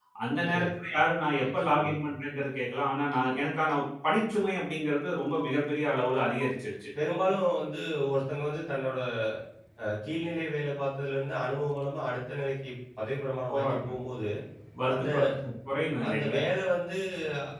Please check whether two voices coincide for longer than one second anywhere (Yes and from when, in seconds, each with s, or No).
No